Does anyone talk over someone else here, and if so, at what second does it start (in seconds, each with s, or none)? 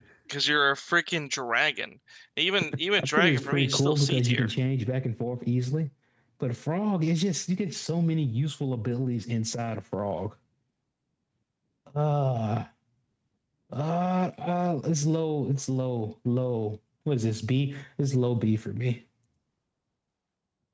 3.0 s